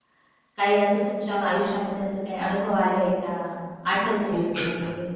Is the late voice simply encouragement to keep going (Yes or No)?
No